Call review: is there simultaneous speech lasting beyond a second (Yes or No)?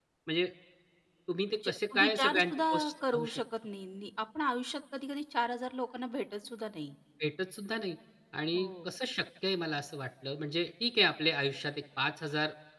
Yes